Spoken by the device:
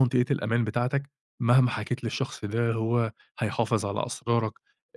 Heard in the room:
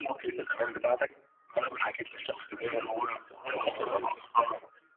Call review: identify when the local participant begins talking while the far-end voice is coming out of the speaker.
2 s

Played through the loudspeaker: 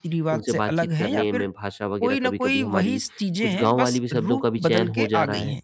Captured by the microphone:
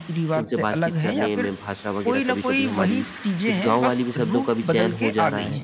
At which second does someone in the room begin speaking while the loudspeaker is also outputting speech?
none

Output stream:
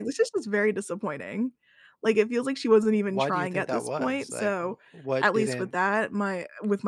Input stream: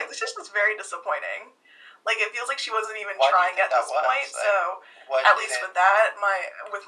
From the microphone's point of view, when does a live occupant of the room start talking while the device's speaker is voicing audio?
none

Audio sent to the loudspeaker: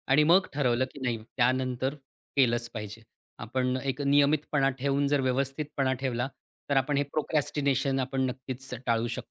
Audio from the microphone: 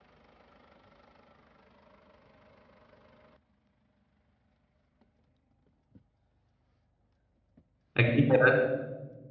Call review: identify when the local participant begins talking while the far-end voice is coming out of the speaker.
8 s

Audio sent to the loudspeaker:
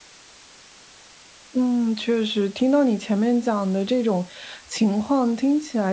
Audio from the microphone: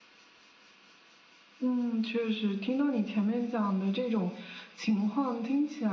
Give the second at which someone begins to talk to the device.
none

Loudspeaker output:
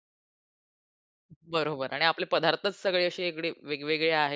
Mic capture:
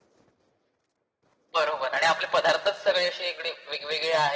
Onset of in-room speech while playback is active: none

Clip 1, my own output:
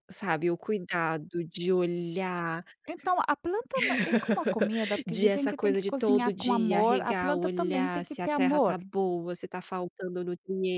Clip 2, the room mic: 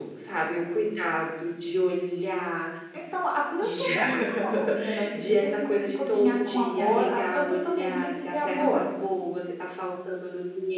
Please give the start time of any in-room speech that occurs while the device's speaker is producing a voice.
4 s

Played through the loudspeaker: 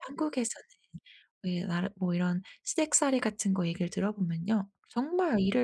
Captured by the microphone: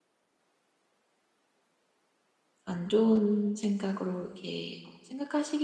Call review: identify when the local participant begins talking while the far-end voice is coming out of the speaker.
3 s

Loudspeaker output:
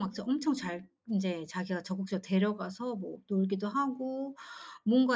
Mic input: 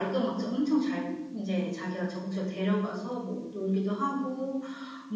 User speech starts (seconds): none

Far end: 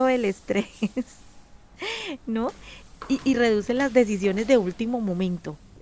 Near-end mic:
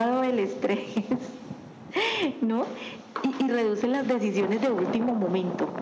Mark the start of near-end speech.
none

